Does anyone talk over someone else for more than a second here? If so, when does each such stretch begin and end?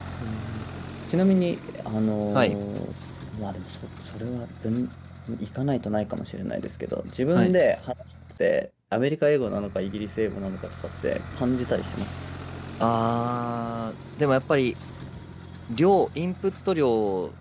none

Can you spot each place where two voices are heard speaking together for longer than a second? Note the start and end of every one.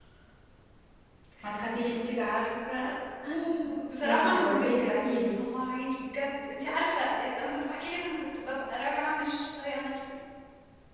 4.0-5.3

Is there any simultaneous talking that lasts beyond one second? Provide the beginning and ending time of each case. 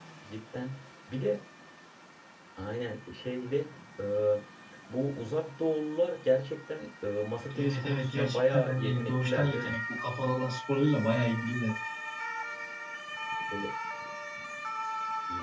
7.6-9.8

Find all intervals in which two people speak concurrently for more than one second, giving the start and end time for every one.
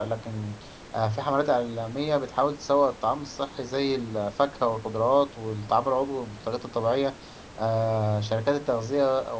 none

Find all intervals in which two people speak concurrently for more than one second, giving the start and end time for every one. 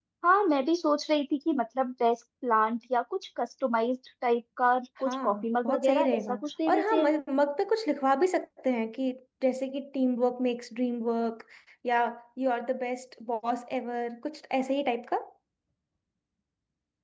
5.0-6.3

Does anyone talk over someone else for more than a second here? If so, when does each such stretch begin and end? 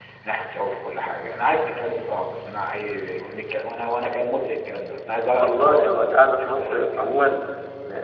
5.4-7.4

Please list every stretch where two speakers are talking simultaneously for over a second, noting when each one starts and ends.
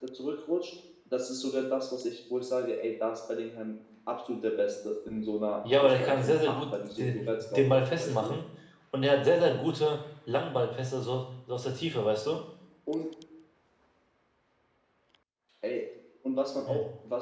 5.8-8.4

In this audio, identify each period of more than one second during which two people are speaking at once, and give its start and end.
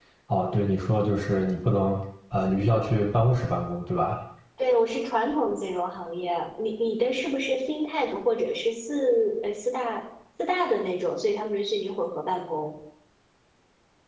none

